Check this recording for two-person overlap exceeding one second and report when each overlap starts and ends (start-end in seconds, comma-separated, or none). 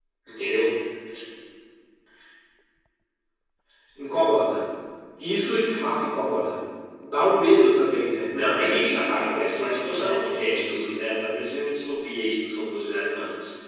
8.5-10.9